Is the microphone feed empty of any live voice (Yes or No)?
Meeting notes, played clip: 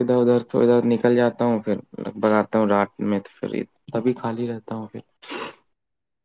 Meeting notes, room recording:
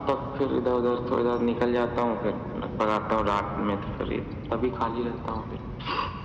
Yes